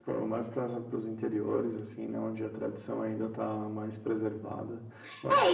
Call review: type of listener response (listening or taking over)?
taking over